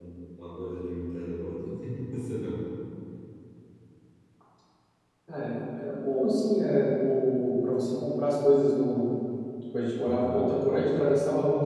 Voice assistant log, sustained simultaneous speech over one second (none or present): none